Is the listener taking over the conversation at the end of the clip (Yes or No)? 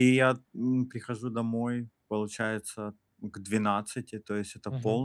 No